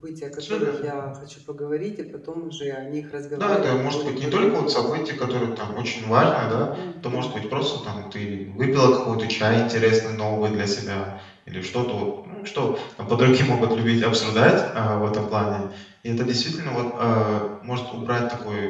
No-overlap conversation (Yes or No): No